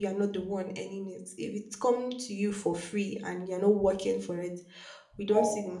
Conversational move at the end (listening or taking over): listening